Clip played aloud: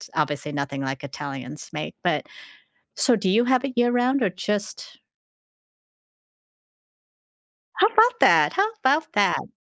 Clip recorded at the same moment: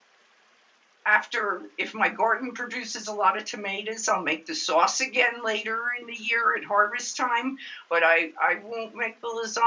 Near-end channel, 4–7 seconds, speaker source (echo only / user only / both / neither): user only